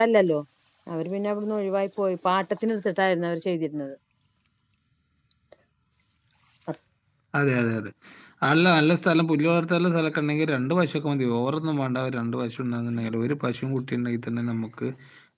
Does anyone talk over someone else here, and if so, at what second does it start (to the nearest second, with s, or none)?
none